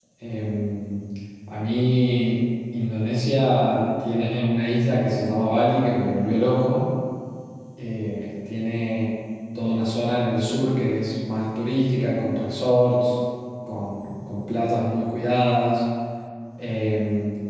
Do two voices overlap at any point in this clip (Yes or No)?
No